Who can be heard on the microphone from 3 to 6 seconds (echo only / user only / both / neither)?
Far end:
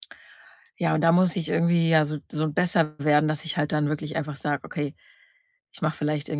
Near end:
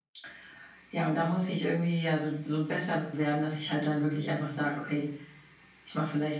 echo only